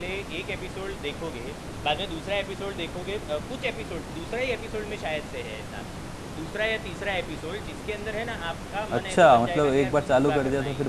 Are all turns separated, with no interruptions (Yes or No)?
No